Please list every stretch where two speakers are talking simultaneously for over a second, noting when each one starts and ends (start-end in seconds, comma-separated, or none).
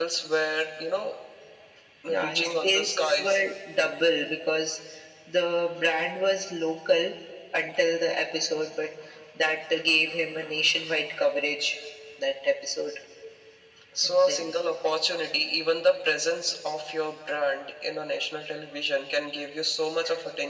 2.1-3.4